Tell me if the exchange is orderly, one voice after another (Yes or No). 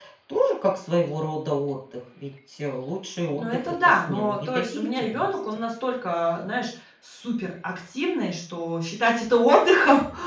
No